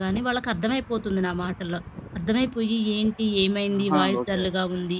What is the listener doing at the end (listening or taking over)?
listening